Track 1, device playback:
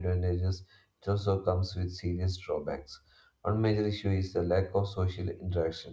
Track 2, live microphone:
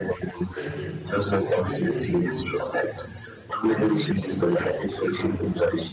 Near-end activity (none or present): present